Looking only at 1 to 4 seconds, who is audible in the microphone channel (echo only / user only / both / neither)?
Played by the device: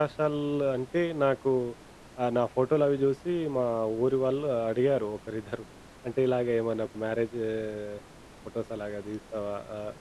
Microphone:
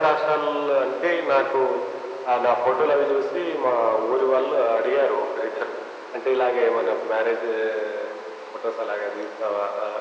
echo only